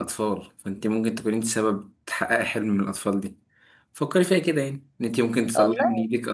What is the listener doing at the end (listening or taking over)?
listening